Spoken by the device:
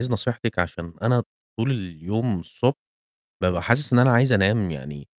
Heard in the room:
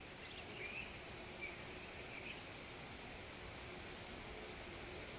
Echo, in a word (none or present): none